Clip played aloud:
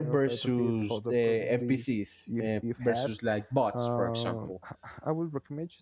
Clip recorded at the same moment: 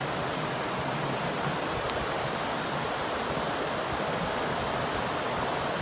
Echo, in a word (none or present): none